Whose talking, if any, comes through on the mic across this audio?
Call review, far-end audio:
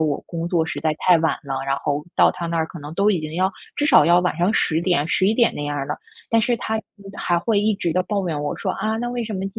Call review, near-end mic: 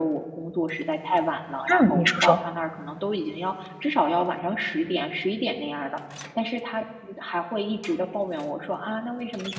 both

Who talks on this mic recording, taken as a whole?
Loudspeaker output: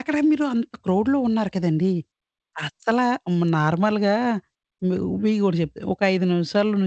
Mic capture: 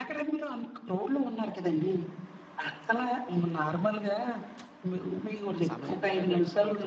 both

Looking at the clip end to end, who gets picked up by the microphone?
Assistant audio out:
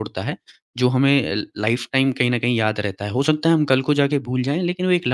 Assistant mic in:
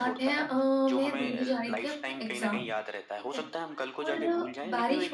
both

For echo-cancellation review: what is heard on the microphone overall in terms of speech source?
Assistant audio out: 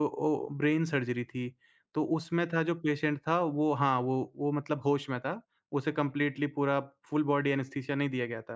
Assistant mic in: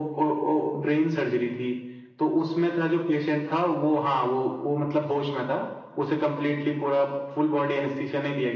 echo only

